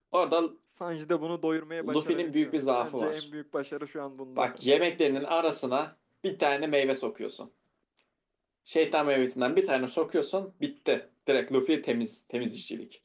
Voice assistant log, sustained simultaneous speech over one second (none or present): present